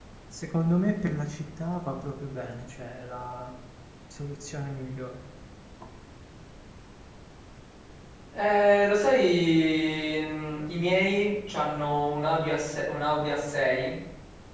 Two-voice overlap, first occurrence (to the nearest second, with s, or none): none